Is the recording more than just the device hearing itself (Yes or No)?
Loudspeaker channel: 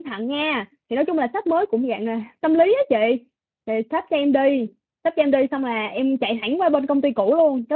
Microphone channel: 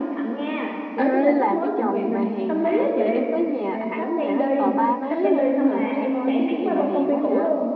Yes